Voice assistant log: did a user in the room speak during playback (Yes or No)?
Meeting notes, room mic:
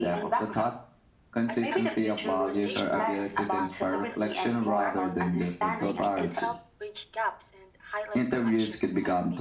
Yes